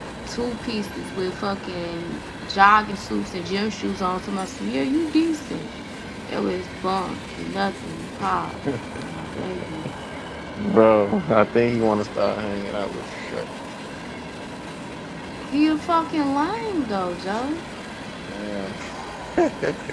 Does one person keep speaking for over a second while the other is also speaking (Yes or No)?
No